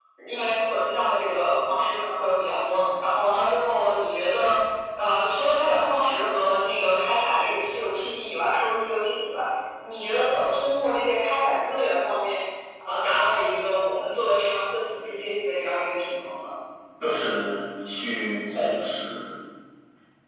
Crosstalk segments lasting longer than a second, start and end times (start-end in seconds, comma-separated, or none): none